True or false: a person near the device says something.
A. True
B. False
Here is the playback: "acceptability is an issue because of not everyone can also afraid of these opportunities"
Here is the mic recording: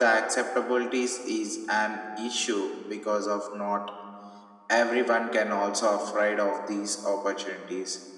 B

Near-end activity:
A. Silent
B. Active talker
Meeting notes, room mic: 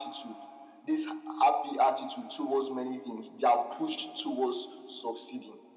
A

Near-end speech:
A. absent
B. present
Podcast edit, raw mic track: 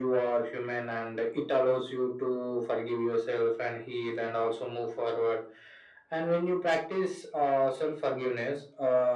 A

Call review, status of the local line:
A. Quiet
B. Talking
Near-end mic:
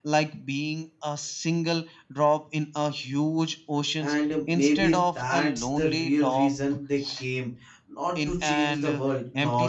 B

